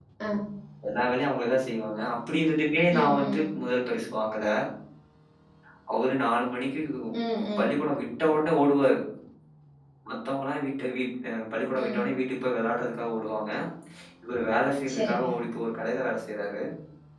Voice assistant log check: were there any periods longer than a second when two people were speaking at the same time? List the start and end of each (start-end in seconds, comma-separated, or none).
none